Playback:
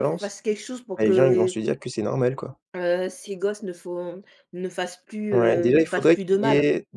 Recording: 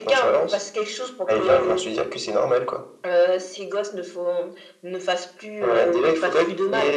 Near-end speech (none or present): none